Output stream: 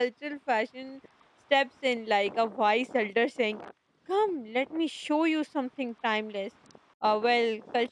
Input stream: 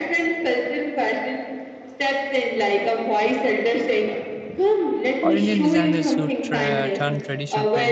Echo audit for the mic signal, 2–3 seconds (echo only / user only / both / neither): echo only